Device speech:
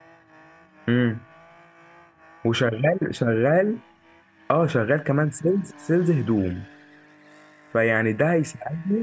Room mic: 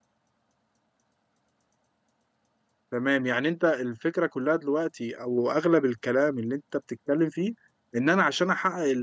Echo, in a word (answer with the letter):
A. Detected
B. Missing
B